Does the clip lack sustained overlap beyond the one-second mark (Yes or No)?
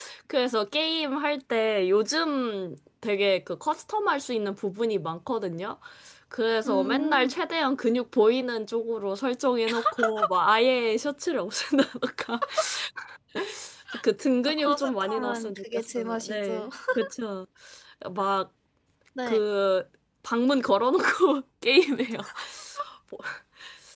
No